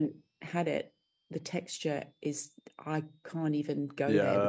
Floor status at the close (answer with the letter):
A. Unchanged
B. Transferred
B